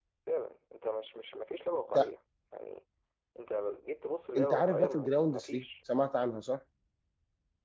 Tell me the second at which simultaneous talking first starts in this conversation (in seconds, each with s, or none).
4.3 s